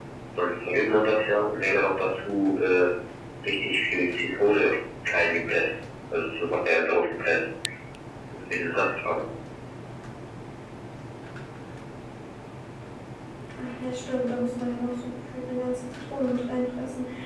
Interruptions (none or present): none